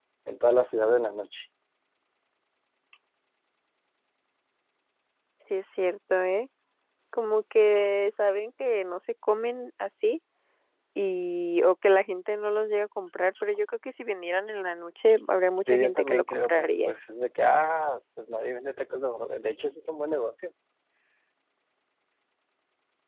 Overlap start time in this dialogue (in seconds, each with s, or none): 15.7 s